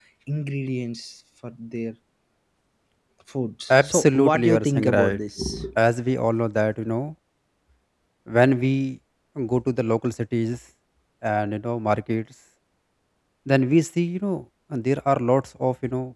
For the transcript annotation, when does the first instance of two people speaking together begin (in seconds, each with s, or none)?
3.7 s